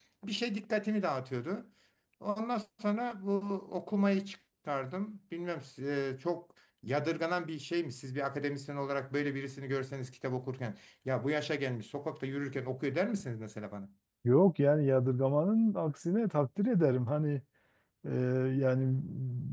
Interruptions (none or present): none